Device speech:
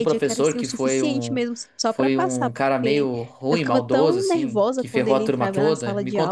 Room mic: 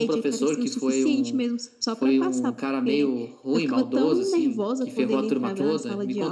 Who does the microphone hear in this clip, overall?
echo only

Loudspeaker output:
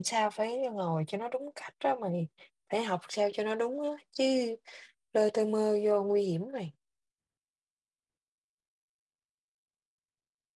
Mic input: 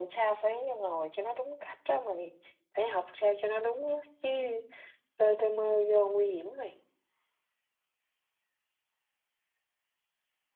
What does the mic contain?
echo only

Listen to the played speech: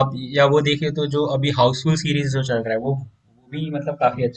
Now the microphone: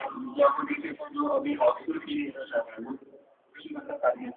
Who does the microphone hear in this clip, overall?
echo only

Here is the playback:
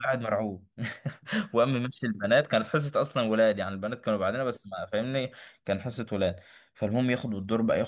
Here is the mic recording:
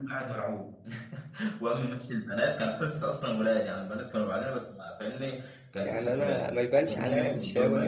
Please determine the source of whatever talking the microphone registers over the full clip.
both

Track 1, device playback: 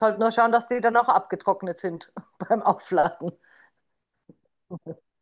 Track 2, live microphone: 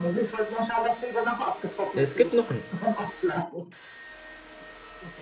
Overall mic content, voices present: both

